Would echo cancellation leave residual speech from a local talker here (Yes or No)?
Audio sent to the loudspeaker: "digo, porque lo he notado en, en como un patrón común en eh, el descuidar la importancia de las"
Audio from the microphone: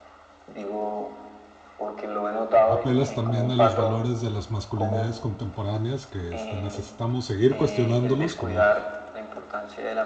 Yes